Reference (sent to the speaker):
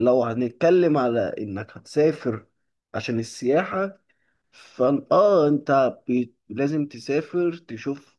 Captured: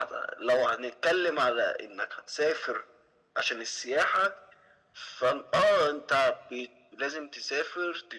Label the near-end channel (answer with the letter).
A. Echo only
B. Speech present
A